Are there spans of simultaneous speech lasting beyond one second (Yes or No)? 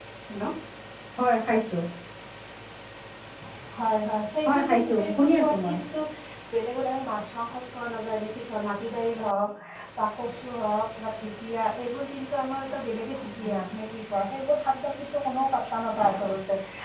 Yes